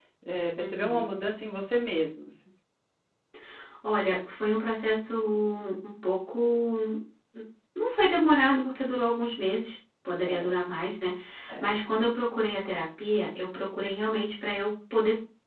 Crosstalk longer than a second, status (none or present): none